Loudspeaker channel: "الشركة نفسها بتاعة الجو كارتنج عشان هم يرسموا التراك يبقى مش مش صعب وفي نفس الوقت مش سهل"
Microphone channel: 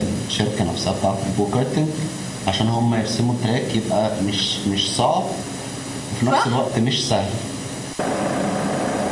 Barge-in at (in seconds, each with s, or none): 6.2 s